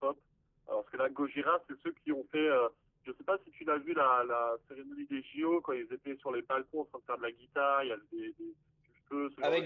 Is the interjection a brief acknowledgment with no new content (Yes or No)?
No